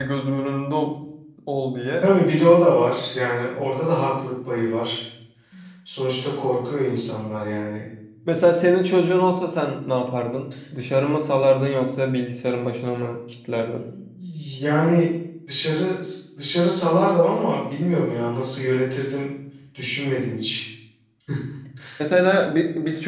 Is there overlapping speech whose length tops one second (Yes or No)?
No